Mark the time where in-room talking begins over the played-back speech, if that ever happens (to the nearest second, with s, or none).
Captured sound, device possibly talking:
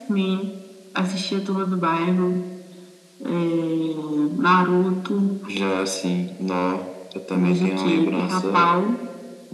none